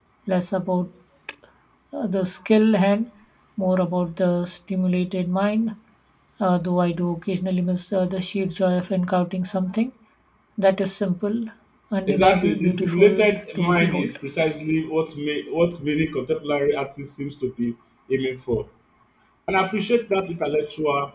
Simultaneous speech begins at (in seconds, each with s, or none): 12.1 s